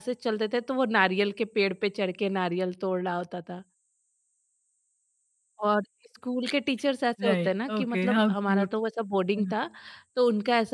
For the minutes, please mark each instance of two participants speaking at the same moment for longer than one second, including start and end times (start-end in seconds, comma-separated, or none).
7.2-8.7